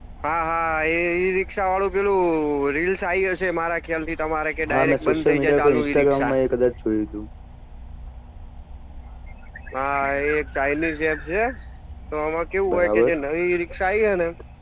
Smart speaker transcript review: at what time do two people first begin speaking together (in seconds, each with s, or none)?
4.7 s